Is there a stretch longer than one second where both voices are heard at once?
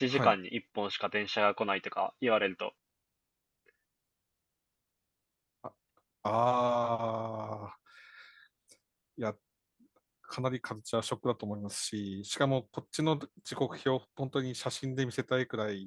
No

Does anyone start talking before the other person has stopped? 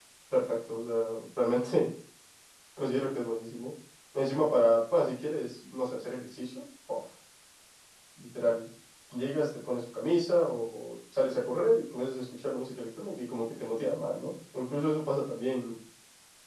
No

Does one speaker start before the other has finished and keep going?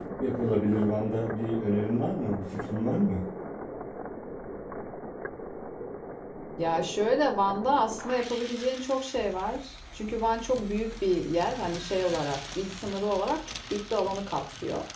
No

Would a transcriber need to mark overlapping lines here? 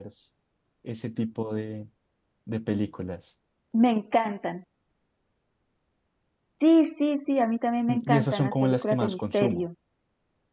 Yes, from 7.9 s

